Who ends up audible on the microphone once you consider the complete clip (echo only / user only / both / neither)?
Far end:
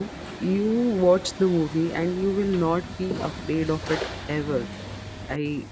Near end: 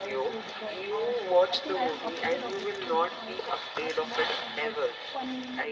both